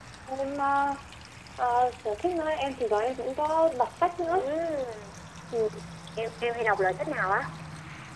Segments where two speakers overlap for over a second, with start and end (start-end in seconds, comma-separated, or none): none